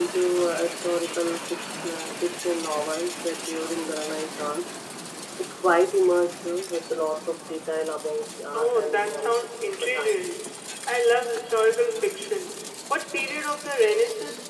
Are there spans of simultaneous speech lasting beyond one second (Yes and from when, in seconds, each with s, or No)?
Yes, from 8.5 s